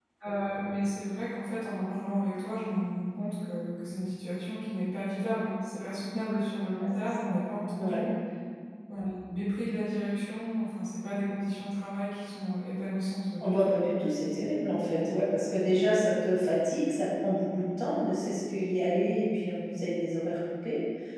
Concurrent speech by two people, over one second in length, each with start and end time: none

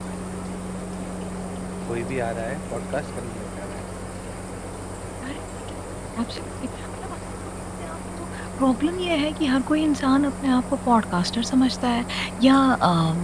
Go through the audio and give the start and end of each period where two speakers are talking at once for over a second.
none

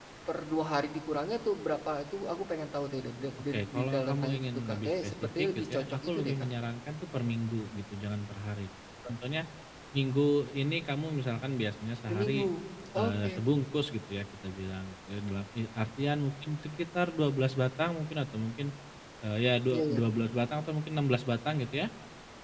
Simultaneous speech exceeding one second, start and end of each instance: 3.5-6.3

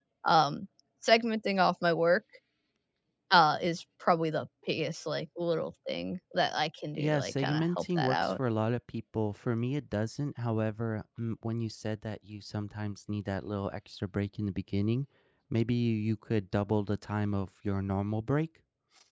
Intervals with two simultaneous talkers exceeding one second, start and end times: 7.0-8.3

